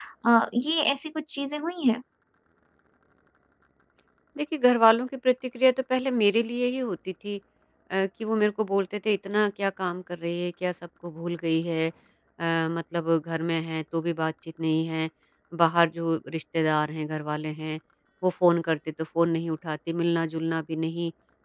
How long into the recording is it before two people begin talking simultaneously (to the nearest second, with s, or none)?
none